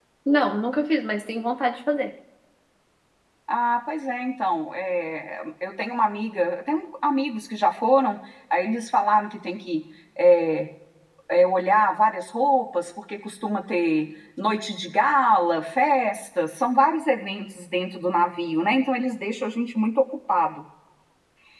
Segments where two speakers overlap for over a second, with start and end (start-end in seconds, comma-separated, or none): none